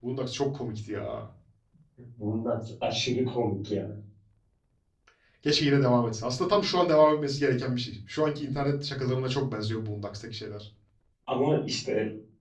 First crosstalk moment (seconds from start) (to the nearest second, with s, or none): none